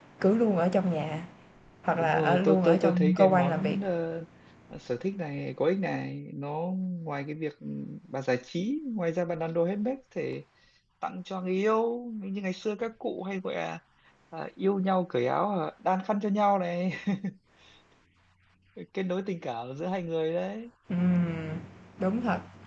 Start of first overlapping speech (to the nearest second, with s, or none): 2 s